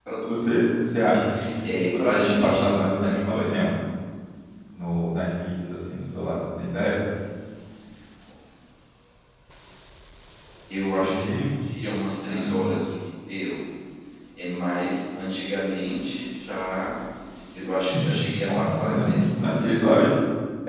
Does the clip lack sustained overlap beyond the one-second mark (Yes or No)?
No